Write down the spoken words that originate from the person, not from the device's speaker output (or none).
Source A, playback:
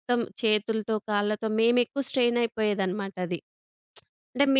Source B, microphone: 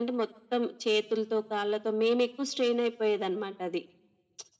none